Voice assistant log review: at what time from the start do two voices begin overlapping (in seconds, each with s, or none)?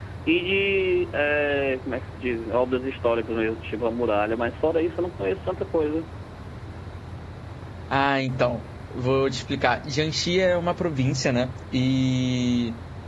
none